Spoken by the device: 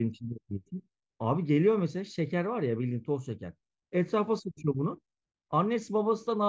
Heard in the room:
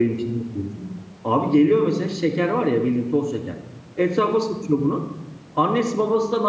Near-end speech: none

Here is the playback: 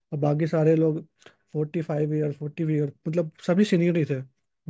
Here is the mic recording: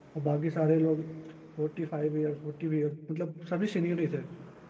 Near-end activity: none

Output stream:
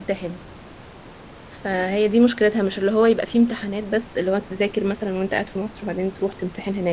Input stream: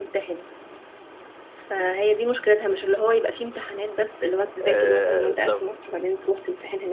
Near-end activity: present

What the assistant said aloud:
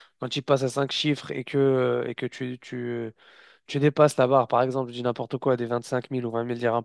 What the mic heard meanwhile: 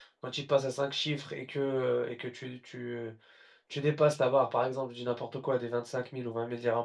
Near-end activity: none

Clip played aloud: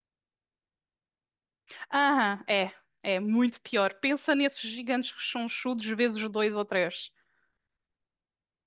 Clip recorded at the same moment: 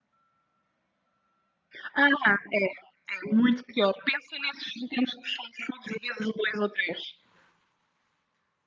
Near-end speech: none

